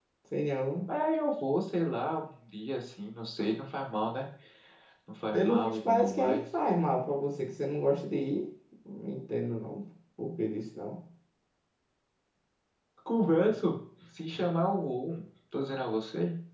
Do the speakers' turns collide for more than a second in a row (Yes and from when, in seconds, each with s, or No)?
Yes, from 5.3 s